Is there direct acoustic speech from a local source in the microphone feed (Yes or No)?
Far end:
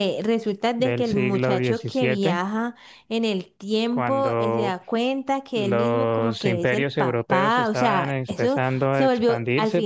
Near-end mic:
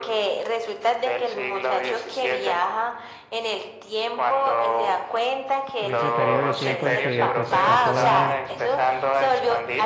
Yes